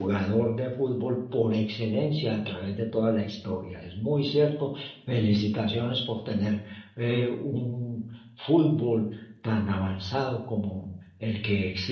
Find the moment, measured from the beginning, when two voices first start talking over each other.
none

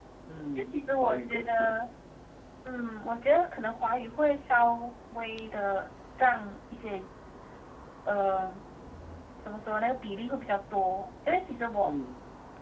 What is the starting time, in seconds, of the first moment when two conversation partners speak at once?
0.6 s

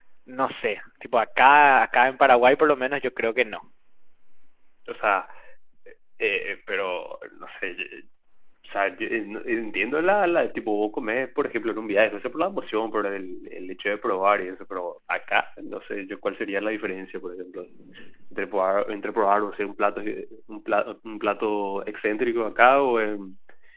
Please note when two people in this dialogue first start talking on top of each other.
none

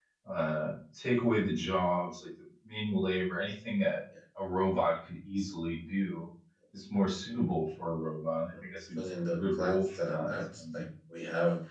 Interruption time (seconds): 9.0 s

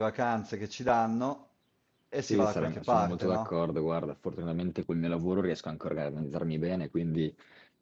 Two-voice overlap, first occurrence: 2.3 s

